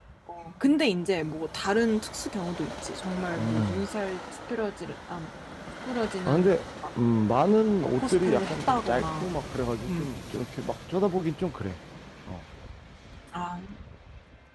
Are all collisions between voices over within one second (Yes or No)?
No